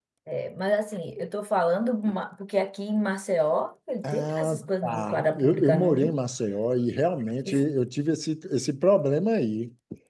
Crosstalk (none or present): present